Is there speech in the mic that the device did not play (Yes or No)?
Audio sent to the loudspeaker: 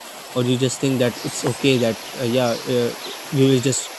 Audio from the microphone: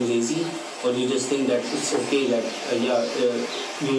No